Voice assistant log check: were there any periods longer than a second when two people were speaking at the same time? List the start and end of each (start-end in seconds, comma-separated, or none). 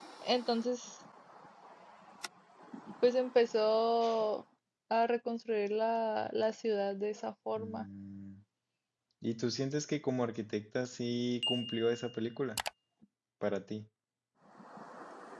none